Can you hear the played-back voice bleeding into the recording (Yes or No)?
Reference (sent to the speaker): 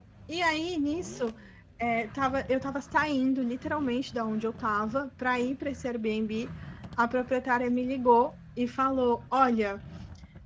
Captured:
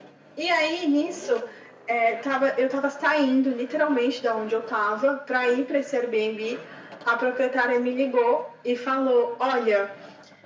Yes